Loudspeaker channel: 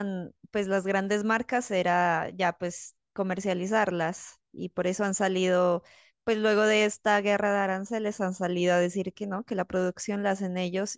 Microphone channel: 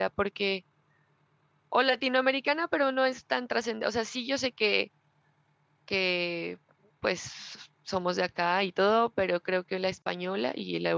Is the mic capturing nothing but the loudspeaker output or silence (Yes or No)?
No